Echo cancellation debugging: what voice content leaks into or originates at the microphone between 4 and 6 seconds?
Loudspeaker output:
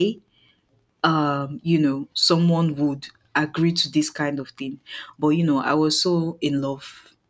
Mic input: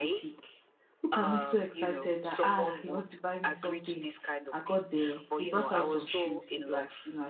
both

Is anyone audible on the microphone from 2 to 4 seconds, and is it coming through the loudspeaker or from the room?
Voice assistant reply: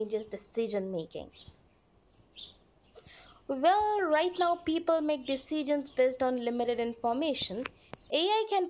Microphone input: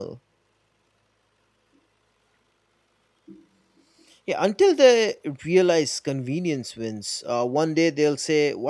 neither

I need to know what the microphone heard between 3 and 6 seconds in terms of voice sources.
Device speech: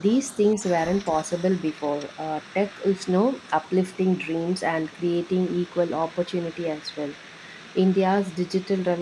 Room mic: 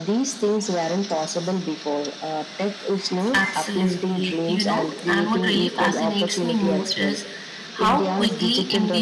both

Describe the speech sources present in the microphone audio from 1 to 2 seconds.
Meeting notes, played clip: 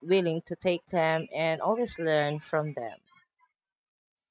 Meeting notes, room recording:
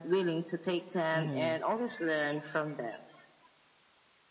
both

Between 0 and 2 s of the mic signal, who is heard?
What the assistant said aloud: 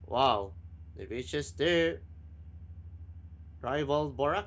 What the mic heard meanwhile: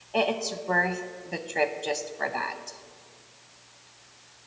user only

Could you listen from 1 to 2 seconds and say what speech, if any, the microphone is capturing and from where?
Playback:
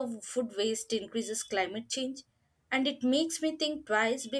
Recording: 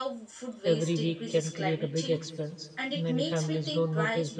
both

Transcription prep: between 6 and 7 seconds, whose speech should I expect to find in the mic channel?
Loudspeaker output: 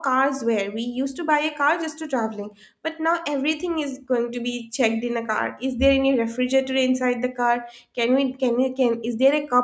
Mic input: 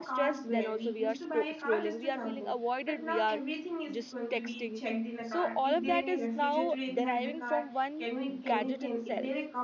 both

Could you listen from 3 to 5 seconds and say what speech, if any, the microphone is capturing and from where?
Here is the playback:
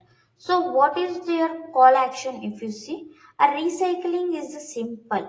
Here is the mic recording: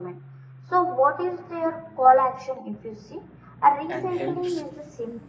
both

